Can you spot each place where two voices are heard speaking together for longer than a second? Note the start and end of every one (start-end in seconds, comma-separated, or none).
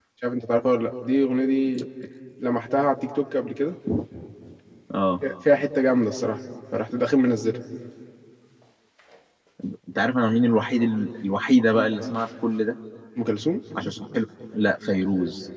none